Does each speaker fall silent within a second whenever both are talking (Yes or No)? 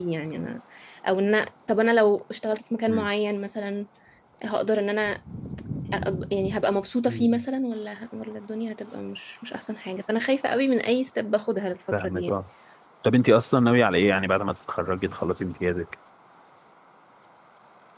Yes